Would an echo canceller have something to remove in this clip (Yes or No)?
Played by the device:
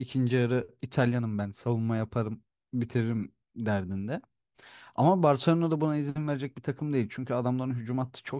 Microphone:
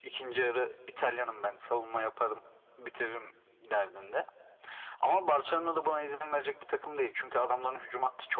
Yes